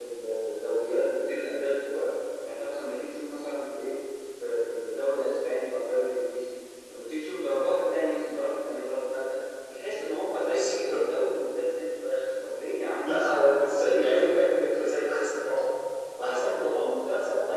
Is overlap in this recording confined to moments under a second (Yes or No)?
No